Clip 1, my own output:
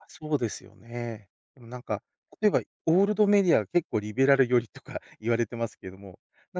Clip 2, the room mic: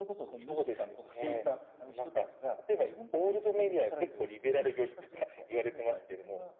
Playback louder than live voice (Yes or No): Yes